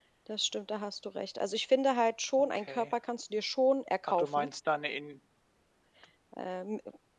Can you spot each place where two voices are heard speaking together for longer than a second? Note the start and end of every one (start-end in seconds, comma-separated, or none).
none